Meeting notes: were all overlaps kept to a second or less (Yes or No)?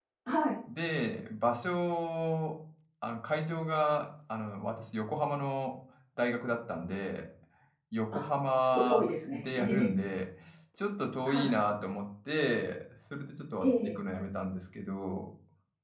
No